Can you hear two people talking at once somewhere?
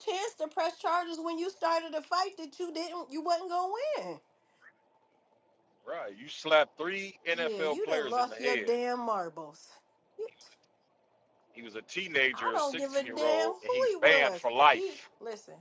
Yes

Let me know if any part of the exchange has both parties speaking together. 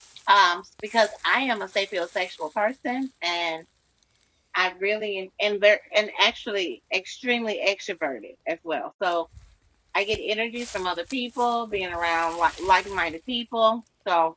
No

